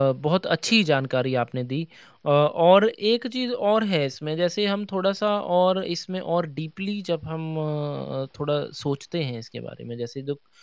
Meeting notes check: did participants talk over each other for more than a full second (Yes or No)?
No